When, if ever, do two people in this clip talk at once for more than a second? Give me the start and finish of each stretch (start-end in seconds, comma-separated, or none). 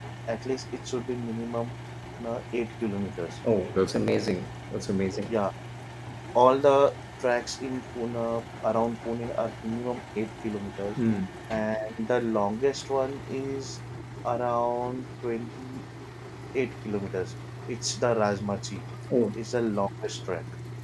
none